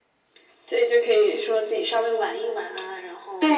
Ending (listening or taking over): taking over